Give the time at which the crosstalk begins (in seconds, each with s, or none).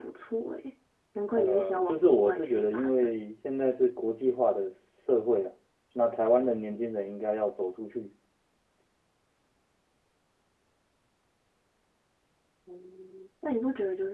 1.4 s